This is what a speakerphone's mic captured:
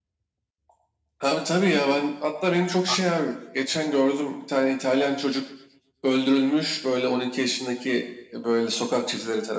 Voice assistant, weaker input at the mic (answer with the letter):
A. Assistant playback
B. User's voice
B